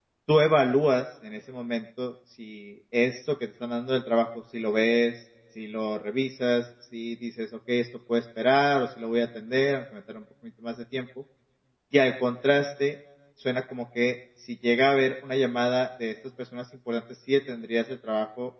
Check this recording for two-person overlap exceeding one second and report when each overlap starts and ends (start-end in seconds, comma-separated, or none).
none